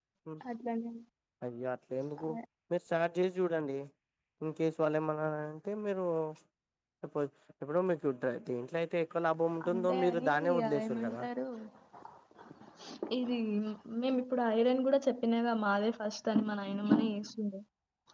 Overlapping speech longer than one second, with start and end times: 9.7-11.2

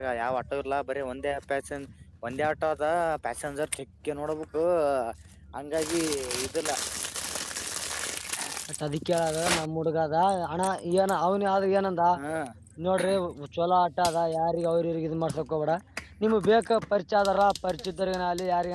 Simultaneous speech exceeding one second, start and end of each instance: none

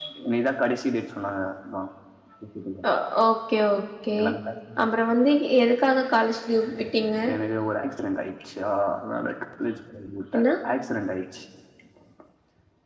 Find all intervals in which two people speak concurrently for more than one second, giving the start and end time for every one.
none

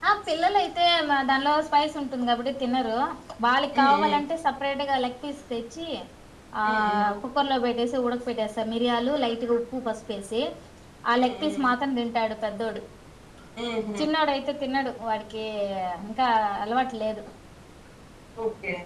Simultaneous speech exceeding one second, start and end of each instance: none

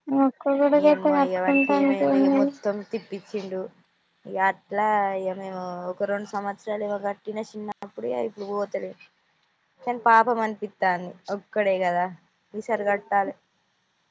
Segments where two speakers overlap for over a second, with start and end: 0.9-2.5

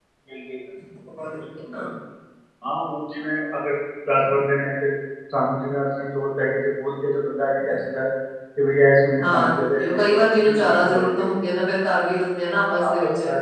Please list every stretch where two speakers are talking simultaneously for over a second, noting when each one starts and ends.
9.2-11.3

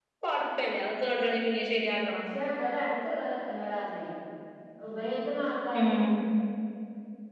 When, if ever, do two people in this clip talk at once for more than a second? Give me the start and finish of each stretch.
none

